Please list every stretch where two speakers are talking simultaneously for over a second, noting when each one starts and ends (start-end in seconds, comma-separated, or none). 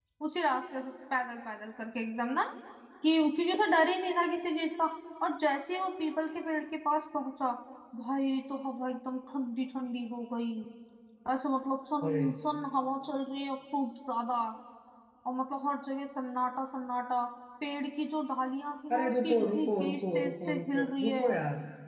18.9-21.3